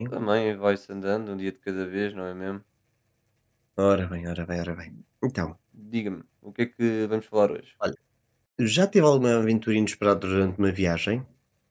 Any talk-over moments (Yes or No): No